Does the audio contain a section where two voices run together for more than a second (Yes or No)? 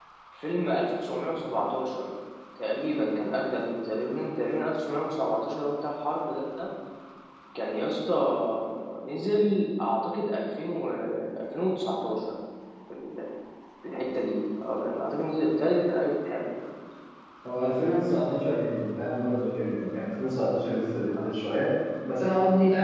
No